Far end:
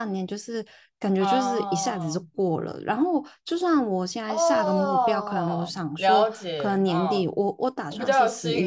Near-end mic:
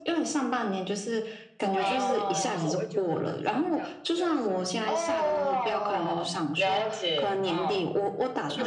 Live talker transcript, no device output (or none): 对对对，就是我会觉得人生这样子比较有效率。